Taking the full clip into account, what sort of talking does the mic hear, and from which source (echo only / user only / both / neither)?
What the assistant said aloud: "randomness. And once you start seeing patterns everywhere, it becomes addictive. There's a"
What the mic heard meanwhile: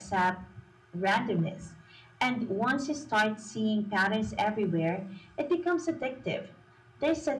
echo only